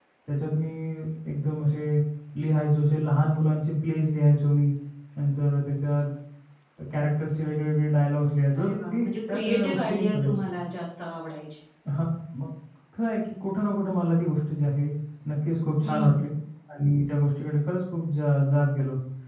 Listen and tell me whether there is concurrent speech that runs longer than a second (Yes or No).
Yes